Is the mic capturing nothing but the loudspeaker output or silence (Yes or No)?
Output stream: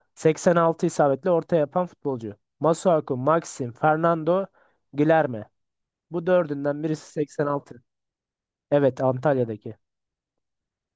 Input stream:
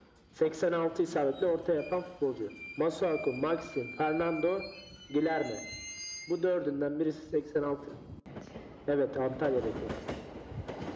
Yes